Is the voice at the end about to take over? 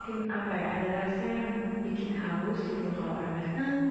Yes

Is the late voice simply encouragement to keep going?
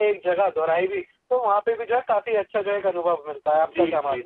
No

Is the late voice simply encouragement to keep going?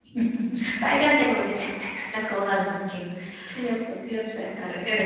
No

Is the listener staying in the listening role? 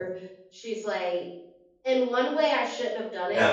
Yes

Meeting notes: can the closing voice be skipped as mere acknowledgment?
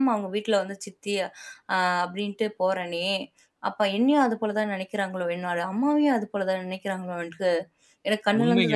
No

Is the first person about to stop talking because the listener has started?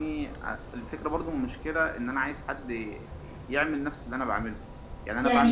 No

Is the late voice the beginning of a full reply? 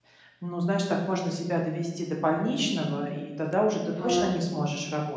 No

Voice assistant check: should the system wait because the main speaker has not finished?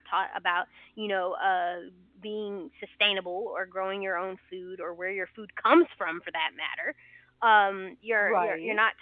Yes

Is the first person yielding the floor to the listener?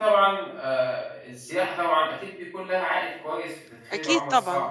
Yes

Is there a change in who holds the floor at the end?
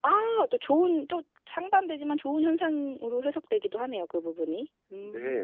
Yes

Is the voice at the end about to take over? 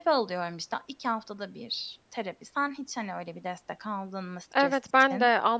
Yes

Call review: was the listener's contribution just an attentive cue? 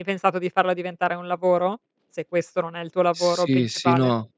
No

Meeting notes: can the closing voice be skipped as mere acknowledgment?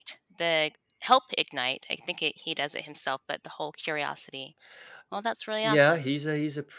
No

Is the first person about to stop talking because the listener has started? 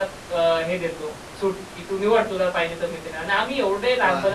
Yes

